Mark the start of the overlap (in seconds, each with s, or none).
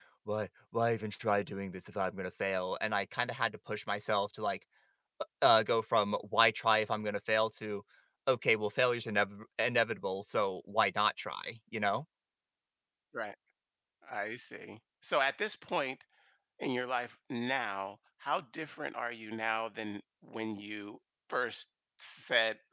none